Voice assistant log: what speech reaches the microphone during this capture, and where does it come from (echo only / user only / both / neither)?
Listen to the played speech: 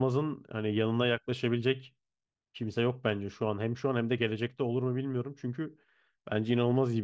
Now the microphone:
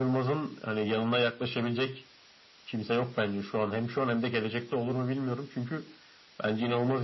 echo only